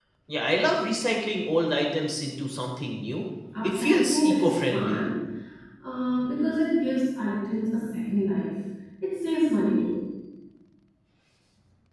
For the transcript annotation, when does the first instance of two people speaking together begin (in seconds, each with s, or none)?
3.5 s